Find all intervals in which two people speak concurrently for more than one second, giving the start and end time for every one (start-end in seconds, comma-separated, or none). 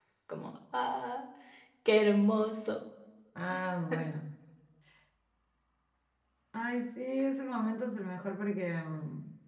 none